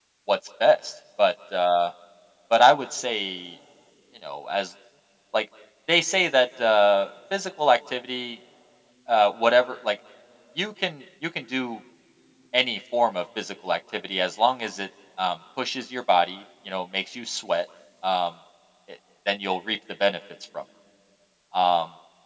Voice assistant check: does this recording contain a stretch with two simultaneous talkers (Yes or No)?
No